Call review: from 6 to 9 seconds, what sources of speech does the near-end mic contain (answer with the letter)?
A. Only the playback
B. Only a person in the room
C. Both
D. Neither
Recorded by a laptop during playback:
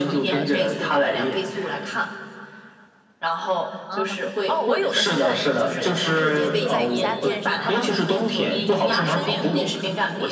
C